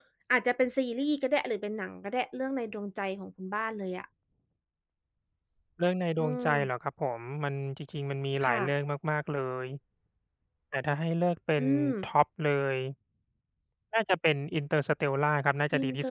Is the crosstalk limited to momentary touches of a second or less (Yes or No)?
Yes